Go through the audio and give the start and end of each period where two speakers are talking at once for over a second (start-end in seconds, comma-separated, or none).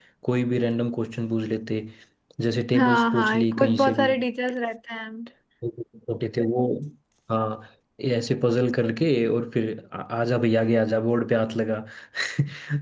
2.8-4.1